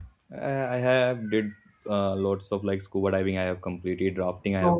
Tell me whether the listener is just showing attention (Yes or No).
Yes